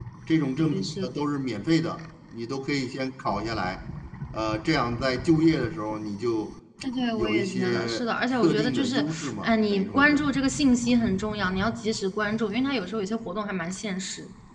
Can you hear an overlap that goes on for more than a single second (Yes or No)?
Yes